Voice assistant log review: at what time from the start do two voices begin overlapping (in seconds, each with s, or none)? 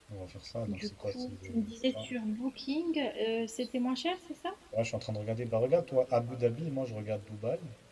0.7 s